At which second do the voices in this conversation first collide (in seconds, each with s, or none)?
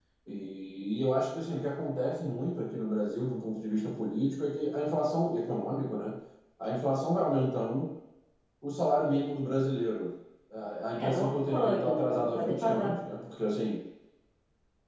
11.0 s